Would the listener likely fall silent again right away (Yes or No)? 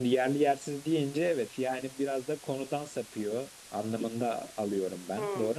No